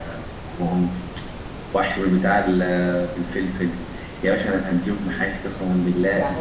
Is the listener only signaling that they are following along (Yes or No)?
No